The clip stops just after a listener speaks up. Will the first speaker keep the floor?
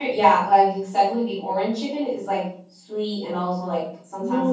No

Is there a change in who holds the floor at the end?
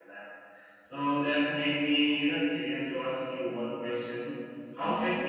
No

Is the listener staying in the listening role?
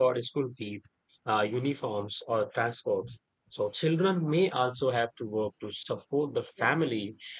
Yes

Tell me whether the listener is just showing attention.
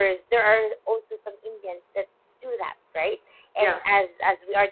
Yes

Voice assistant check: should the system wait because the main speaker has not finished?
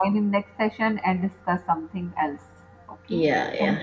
No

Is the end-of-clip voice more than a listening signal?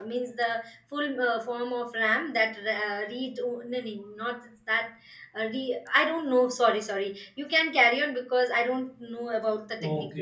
Yes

